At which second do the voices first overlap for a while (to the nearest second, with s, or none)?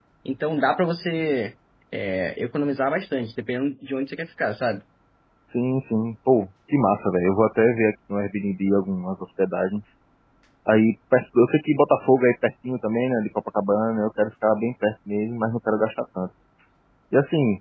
none